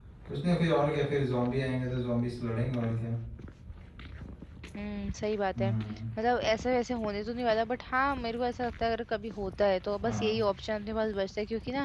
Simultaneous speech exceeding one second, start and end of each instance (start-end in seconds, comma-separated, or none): none